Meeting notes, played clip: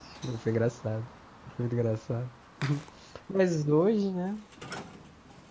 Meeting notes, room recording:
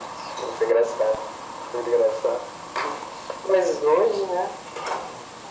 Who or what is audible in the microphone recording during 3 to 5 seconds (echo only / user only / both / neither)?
echo only